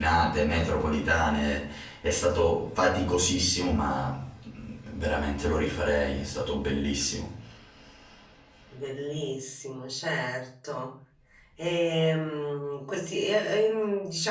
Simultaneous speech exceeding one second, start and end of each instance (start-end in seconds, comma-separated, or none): none